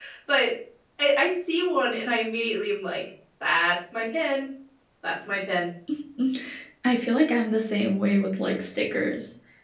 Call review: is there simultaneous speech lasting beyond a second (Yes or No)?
No